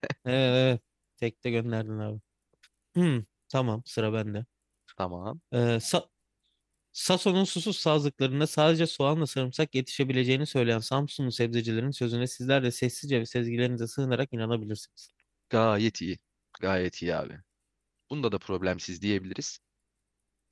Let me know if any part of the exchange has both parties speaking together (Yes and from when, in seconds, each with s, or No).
No